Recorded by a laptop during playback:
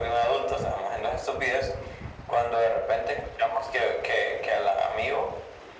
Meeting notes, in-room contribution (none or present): none